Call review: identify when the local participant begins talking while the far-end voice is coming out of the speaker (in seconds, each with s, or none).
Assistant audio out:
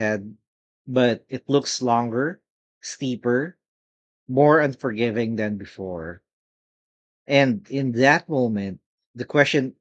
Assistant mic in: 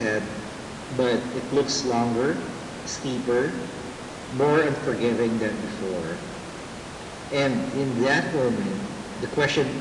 none